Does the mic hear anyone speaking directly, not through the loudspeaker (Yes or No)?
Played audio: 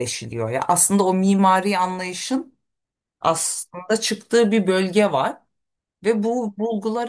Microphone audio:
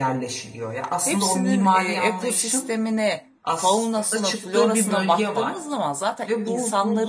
Yes